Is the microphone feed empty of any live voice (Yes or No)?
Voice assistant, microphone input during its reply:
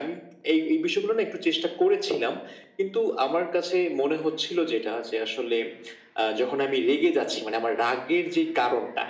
Yes